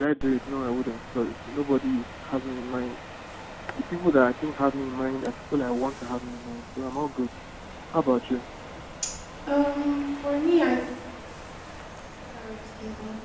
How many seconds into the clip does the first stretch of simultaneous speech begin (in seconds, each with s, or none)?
none